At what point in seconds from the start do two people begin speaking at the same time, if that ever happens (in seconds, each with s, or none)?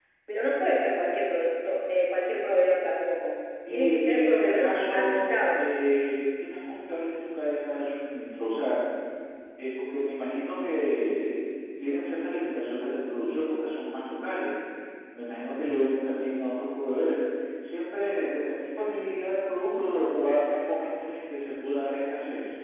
3.7 s